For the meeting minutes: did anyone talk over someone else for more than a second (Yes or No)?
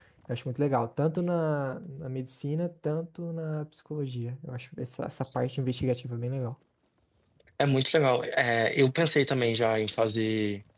No